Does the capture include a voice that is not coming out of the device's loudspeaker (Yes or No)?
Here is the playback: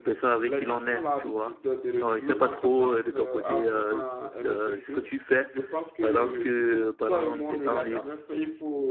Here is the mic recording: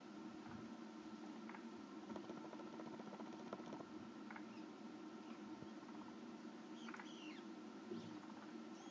No